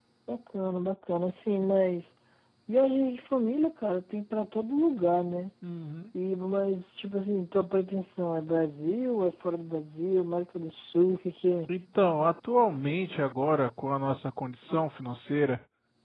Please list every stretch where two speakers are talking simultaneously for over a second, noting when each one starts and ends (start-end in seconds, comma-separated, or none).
none